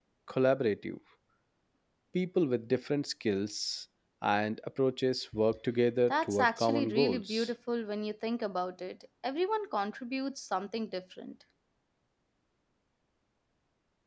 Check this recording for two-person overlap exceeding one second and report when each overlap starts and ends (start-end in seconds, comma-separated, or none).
6.1-7.5